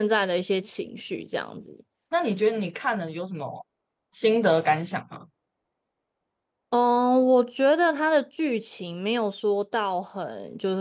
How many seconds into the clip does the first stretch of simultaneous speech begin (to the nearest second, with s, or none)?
none